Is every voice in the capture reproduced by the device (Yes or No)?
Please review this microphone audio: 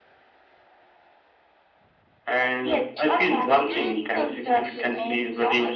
No